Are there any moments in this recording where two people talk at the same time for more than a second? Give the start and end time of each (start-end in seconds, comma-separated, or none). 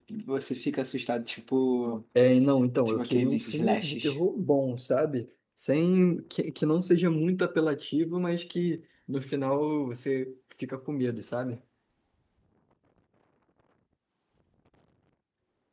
2.9-4.2